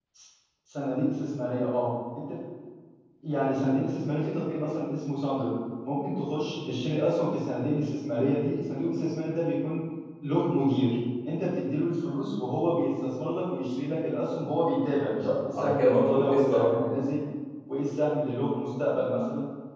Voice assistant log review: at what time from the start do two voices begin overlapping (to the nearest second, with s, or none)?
15 s